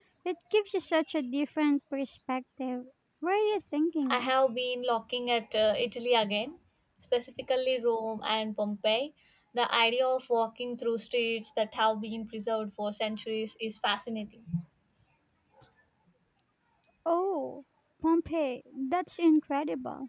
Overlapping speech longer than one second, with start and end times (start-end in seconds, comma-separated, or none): none